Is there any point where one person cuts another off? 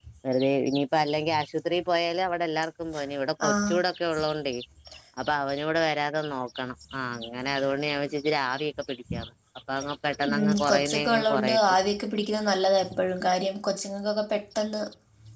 Yes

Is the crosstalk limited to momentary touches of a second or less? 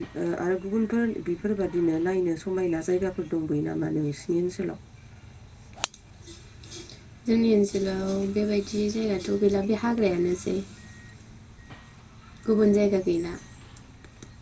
Yes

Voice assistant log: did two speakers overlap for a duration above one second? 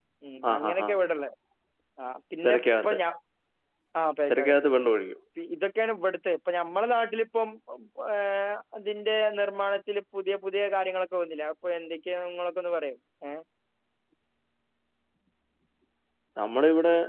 No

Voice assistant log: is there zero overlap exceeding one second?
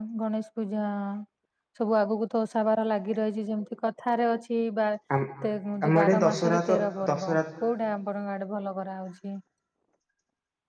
No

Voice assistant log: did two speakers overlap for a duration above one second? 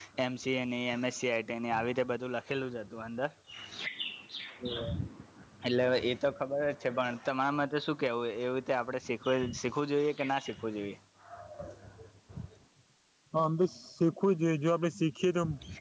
No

